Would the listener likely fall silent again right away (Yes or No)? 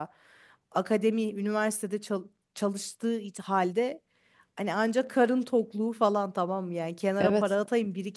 Yes